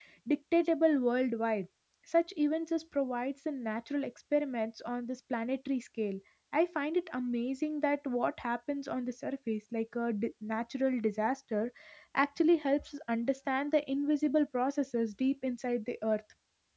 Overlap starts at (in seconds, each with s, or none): none